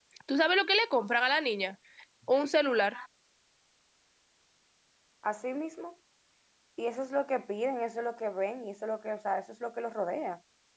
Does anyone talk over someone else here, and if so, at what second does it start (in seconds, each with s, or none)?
none